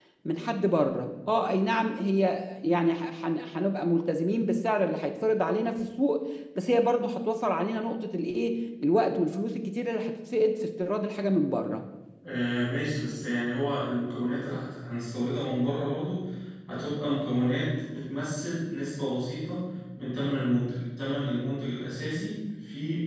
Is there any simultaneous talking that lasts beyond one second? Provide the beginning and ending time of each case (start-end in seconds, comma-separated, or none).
none